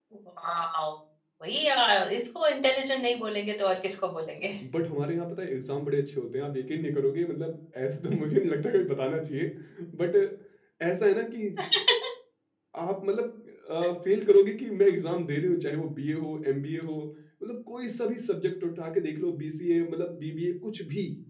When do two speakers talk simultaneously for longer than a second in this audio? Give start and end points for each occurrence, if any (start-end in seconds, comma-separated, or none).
none